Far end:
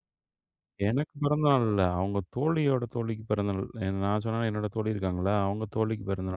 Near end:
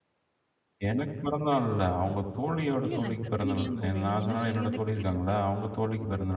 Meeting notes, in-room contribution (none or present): present